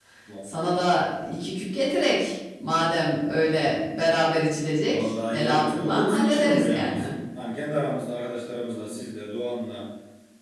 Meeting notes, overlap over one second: present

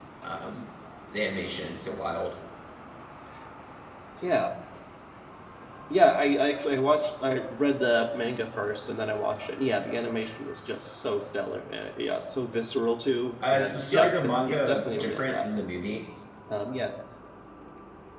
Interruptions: present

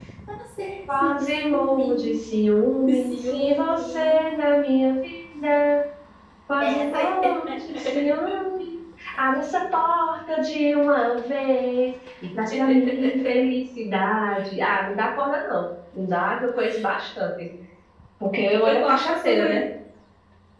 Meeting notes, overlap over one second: present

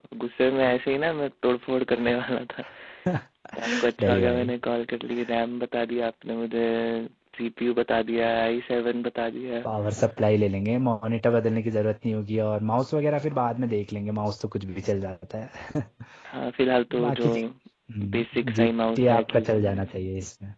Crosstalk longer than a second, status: present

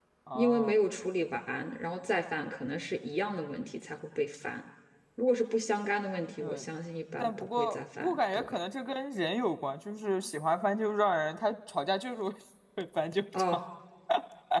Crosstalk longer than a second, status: present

